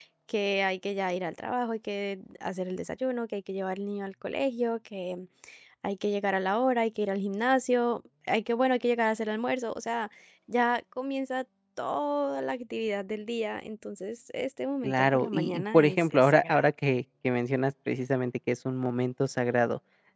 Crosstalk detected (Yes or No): Yes